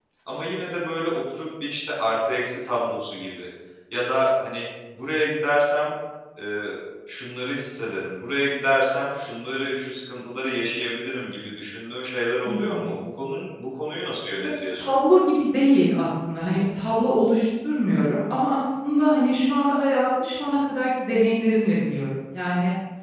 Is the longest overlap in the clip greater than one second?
No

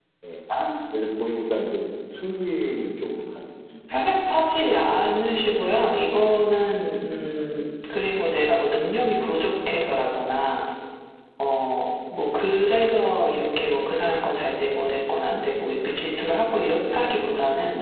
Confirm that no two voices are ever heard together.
Yes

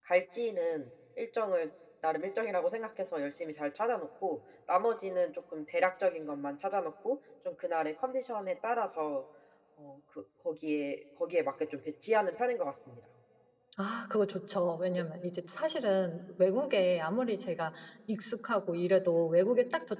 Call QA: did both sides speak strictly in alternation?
Yes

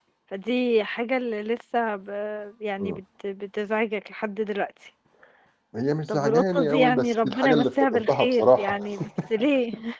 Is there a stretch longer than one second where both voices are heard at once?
Yes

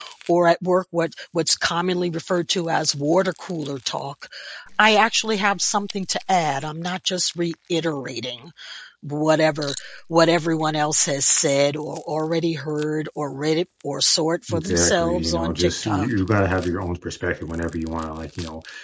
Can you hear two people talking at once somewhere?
Yes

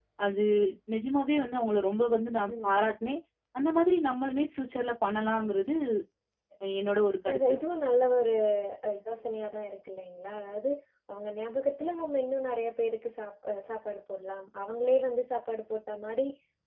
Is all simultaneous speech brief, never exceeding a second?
Yes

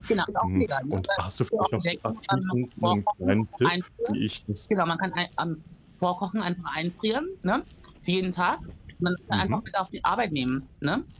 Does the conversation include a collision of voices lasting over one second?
Yes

